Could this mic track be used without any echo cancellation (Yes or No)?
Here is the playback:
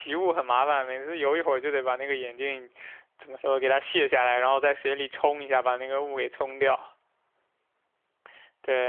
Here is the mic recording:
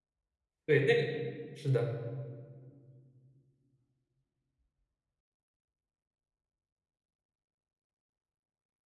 Yes